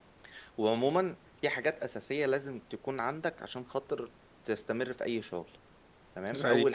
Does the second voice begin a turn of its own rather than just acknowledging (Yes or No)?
No